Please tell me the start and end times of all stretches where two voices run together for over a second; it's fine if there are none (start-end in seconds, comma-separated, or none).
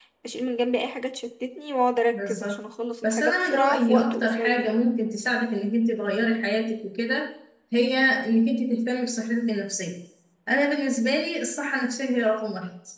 3.0-4.7